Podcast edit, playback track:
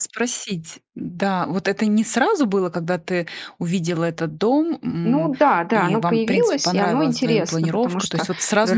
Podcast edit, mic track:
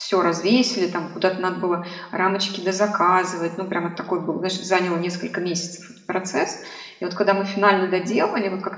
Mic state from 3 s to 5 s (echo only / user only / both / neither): user only